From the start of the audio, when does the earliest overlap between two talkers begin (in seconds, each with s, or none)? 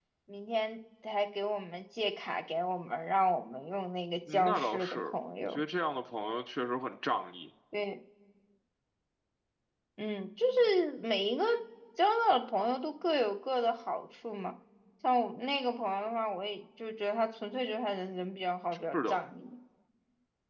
4.3 s